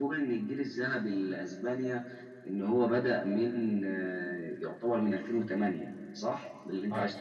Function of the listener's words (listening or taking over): taking over